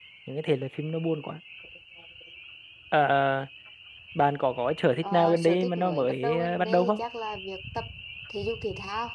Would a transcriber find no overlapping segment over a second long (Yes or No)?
No